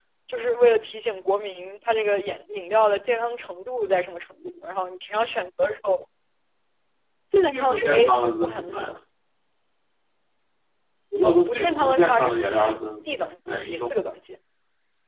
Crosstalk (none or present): present